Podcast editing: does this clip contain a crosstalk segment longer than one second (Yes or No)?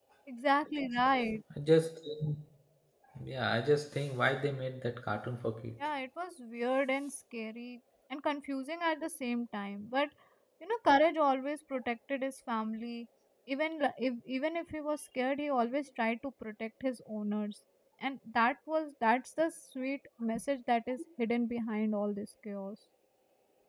No